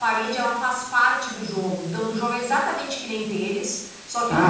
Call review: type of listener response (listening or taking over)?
taking over